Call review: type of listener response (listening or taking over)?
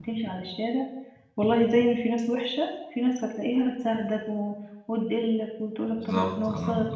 listening